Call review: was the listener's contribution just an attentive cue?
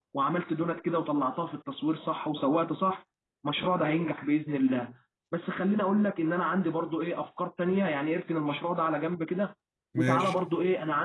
Yes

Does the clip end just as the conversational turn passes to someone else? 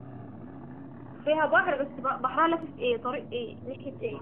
Yes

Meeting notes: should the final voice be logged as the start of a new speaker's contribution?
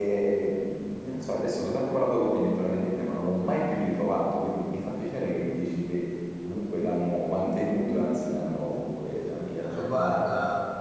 Yes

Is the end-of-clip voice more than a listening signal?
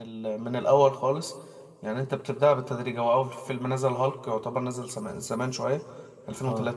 No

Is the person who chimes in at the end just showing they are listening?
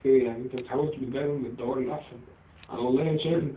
Yes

